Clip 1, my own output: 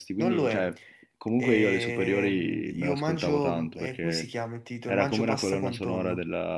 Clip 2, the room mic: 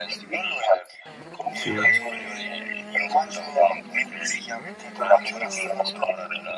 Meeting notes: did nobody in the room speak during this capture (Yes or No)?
No